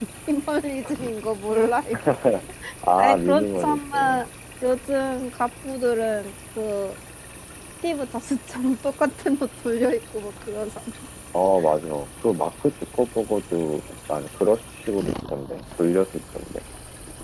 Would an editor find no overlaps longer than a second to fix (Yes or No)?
No